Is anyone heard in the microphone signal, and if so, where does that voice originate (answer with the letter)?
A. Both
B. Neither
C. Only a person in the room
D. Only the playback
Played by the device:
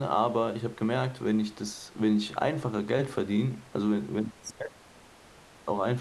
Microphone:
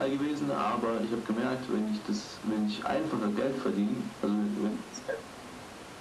D